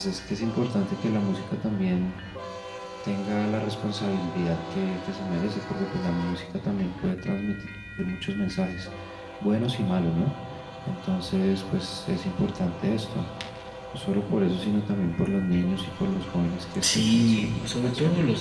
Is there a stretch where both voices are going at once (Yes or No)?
Yes